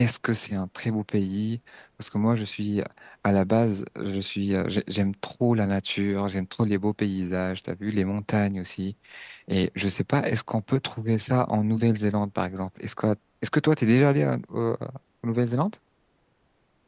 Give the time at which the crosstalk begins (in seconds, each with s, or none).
none